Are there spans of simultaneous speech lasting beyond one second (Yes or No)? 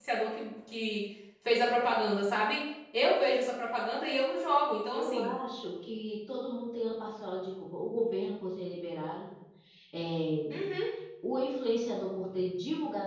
No